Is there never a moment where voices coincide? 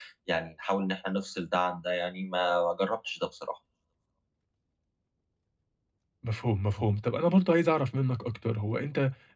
Yes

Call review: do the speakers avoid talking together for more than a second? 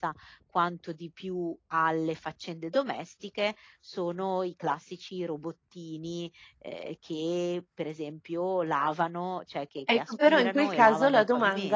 No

